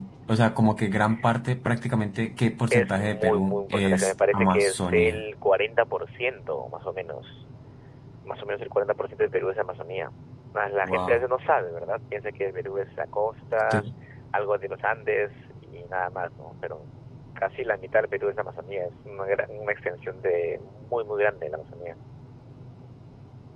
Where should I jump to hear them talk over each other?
3 s

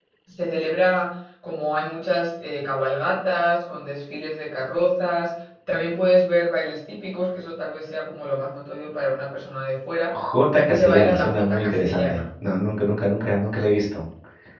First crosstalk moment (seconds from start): 11 s

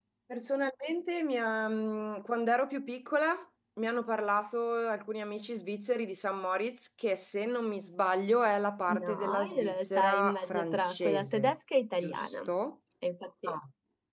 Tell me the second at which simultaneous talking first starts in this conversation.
9 s

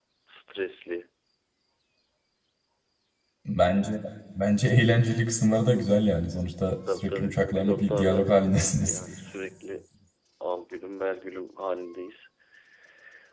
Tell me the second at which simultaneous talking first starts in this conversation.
7 s

